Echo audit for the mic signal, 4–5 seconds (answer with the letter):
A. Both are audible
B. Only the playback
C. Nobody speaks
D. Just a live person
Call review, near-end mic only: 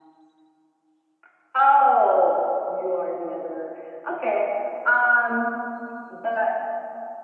B